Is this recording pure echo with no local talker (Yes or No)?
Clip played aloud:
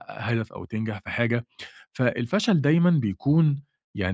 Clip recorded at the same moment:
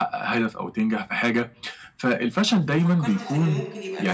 No